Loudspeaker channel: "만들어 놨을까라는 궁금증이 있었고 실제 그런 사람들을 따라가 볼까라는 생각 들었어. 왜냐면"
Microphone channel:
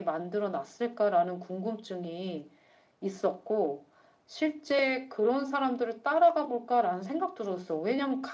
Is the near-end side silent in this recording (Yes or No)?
Yes